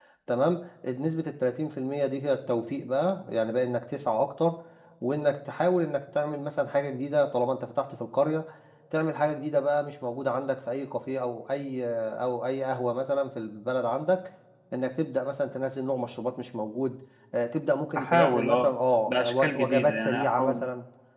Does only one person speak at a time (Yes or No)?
No